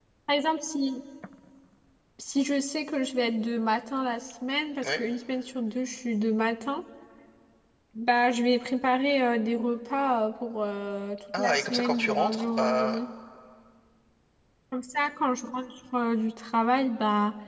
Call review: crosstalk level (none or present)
present